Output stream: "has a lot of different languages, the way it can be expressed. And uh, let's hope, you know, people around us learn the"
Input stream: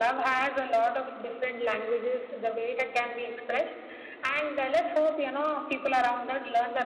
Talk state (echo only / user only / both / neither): echo only